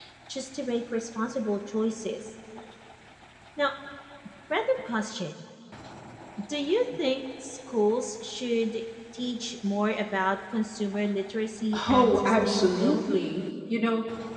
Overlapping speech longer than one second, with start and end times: 11.9-13.3

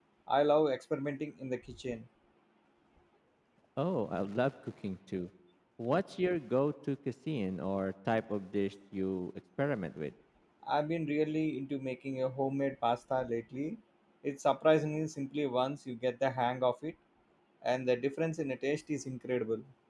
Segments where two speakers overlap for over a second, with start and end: none

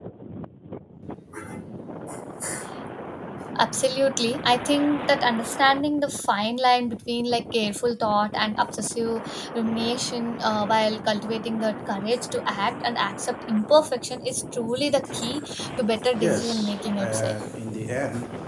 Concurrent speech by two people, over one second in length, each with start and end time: 16.2-17.4

